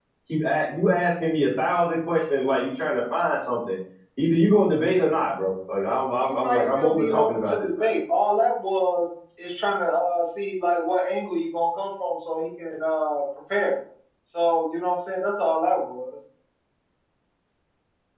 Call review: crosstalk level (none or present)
present